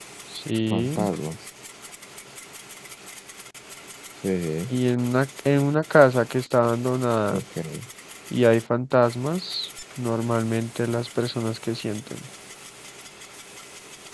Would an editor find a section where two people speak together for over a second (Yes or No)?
No